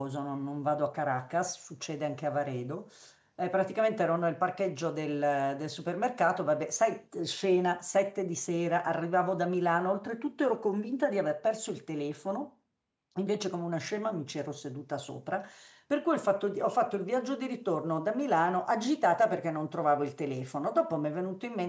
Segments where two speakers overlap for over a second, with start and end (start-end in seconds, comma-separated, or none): none